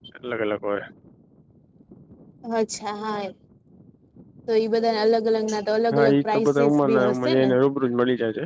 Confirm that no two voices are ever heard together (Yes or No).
No